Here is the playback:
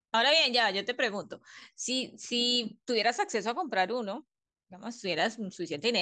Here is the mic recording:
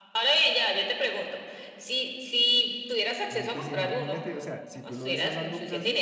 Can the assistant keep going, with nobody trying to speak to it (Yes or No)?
No